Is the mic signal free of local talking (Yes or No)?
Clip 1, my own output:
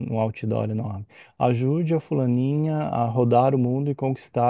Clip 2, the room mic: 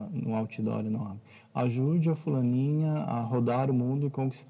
Yes